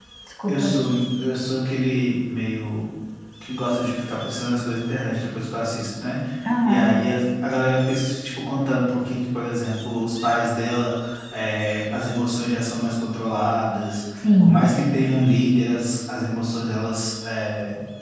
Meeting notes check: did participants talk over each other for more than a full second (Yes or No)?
No